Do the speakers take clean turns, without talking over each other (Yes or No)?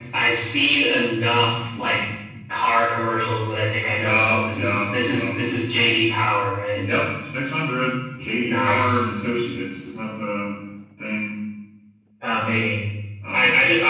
No